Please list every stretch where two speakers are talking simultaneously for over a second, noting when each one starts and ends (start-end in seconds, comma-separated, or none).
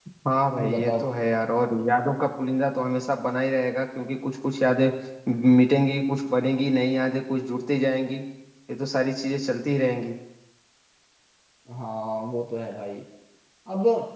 none